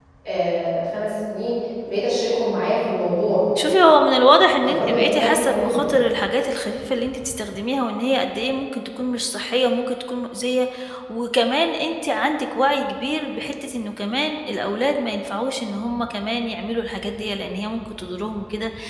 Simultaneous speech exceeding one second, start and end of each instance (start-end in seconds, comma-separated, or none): 4.6-5.9